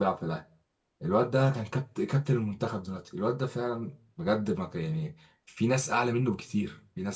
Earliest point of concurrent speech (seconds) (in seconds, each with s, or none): none